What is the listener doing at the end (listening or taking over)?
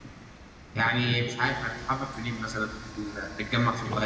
taking over